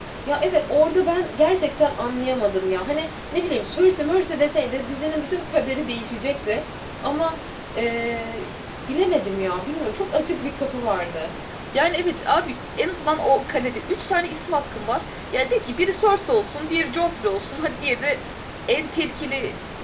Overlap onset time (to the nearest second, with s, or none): none